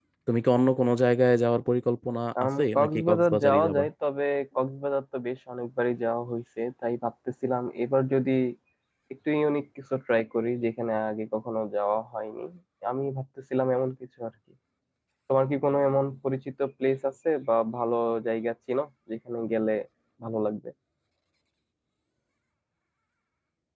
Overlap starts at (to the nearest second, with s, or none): 2 s